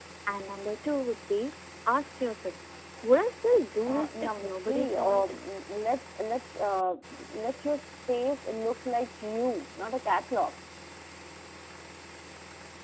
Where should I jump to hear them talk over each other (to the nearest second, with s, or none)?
4 s